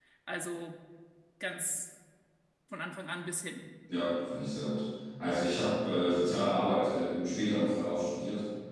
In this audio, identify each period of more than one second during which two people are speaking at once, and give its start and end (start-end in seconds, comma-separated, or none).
none